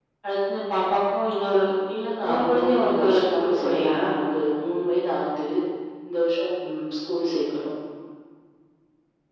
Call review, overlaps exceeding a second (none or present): present